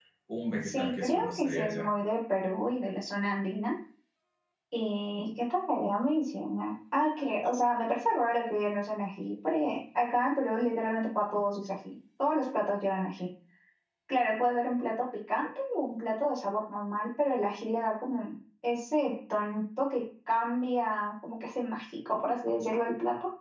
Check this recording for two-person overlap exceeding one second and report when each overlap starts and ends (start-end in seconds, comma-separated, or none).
0.6-1.9